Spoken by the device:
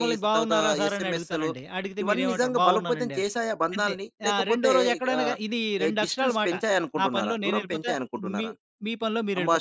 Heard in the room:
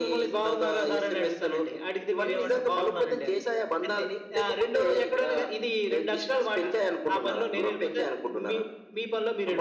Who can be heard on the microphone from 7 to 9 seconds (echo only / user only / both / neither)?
echo only